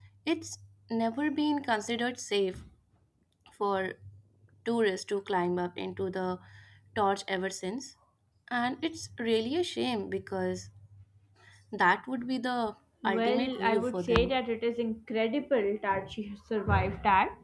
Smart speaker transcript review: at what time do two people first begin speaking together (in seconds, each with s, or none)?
13.0 s